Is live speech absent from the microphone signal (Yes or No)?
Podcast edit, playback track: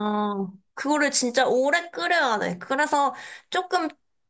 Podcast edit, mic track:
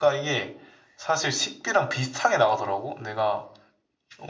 No